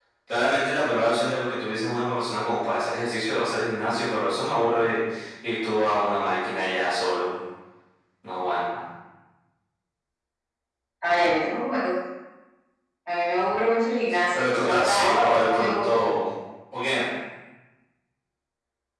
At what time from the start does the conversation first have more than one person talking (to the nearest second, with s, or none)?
14 s